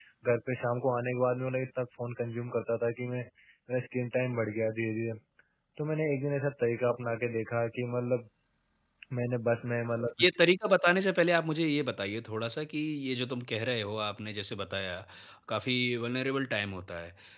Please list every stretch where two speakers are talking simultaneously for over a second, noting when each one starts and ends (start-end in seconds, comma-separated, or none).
none